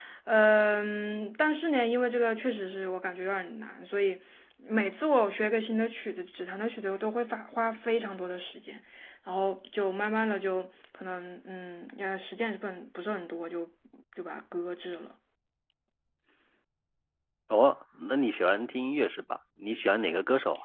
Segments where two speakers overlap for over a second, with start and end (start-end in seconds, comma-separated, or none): none